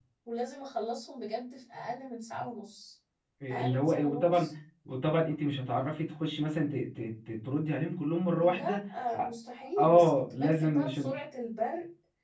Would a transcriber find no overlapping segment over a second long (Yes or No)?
No